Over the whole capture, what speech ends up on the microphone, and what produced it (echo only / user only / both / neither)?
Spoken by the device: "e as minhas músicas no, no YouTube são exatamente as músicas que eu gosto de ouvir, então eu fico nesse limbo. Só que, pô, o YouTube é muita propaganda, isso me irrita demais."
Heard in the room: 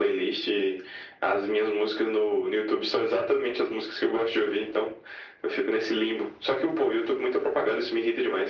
echo only